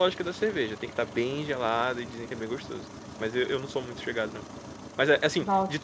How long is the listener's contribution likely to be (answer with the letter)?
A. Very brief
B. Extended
A